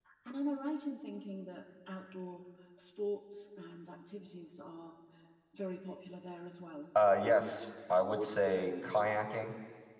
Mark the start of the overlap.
none

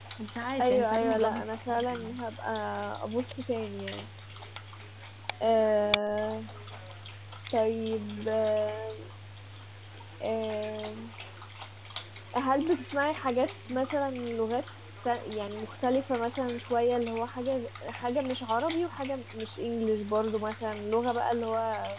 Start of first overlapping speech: 0.6 s

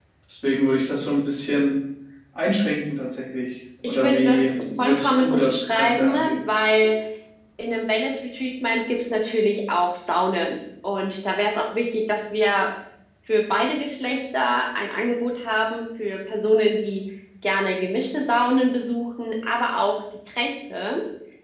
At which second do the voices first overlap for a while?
3.8 s

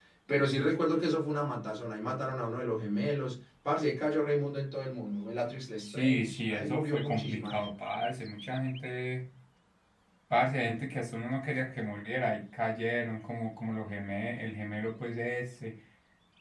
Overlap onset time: 5.8 s

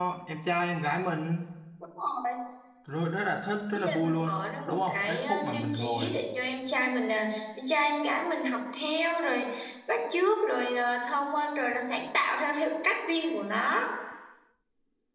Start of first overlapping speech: 3.7 s

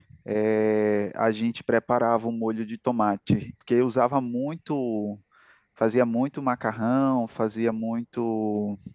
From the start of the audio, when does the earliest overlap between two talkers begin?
none

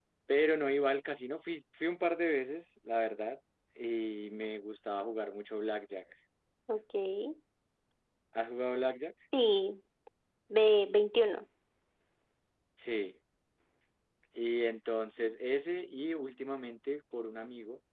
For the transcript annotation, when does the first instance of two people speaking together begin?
none

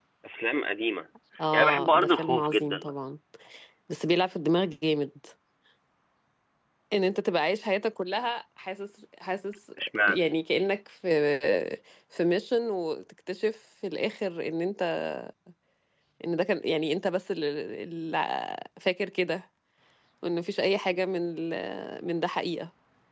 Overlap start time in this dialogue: 1.5 s

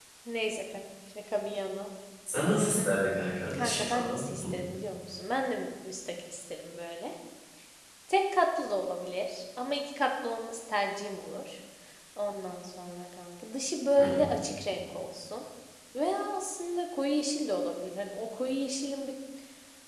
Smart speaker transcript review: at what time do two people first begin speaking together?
2.8 s

